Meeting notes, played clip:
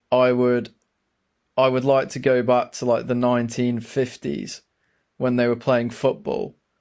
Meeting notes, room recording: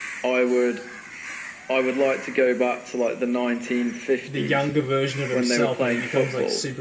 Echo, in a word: present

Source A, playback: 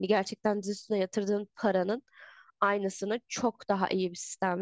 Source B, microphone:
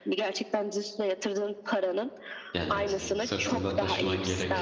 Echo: present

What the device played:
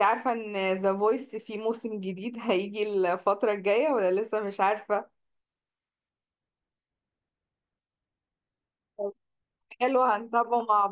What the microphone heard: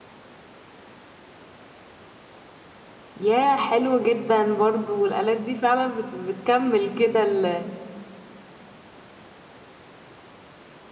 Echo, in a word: none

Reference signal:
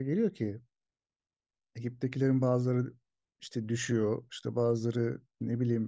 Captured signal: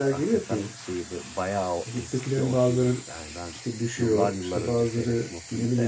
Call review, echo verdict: present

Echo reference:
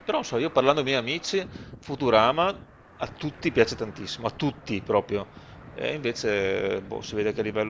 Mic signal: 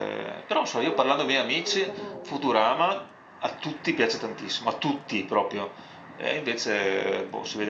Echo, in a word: present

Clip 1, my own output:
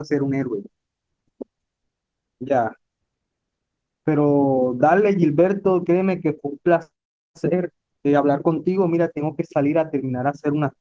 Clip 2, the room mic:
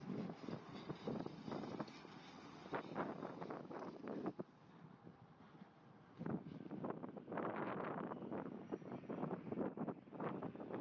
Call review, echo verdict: none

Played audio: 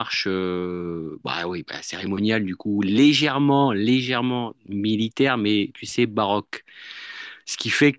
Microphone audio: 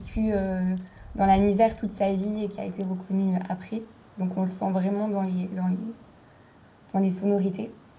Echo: none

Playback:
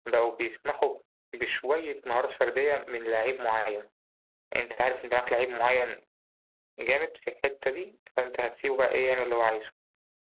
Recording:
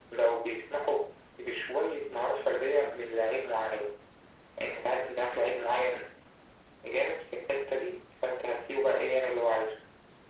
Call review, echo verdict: present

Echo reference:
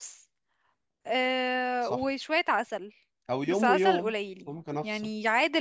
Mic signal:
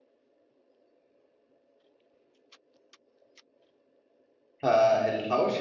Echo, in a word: none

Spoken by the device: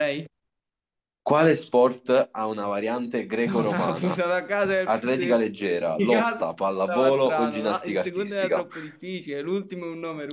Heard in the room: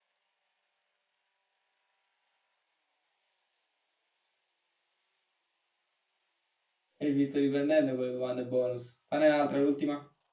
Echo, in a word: none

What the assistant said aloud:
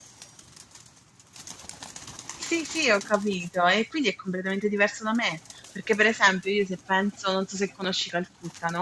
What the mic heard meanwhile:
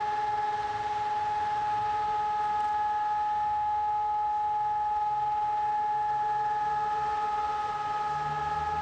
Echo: none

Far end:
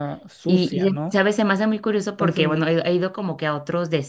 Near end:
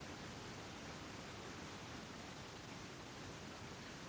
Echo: none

